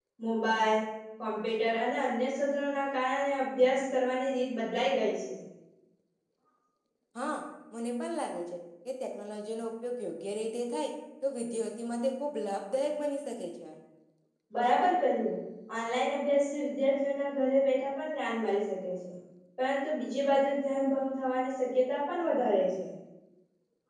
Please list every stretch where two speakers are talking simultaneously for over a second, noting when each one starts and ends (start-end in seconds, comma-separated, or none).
none